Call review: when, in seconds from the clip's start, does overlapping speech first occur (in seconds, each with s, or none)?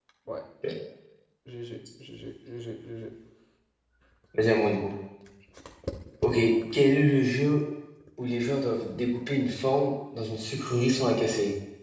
none